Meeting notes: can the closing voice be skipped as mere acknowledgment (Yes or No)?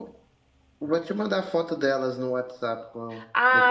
No